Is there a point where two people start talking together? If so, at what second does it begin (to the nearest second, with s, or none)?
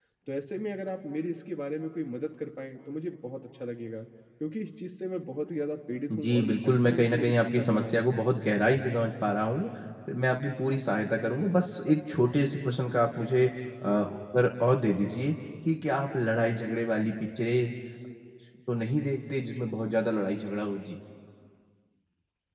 6 s